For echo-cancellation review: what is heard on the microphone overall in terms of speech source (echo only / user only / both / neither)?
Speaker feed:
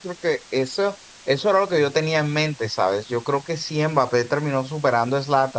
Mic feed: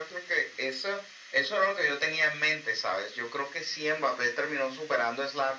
echo only